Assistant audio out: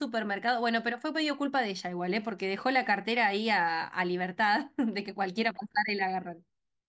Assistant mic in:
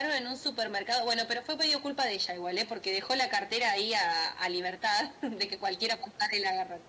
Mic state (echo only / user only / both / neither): echo only